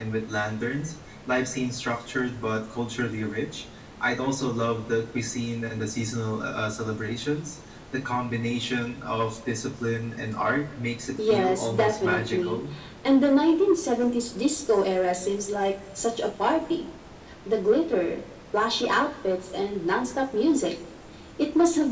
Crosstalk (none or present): present